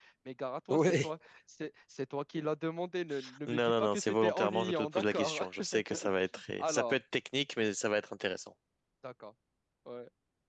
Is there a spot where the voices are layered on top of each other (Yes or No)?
Yes